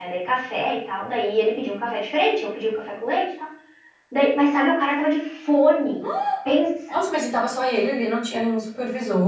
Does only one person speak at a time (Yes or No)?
Yes